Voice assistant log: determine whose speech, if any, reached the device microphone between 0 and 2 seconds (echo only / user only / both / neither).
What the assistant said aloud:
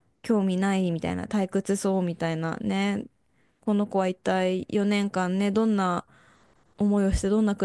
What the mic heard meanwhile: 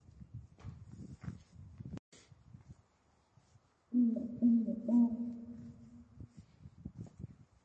neither